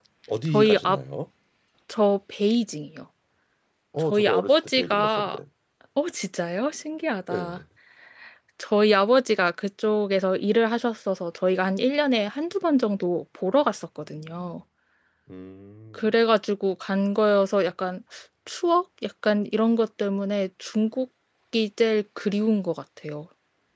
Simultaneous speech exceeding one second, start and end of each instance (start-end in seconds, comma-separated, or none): 4.1-5.4